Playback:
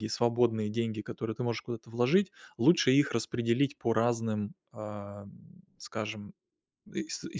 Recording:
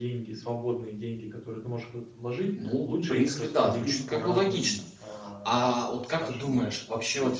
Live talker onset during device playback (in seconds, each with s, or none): 2.5 s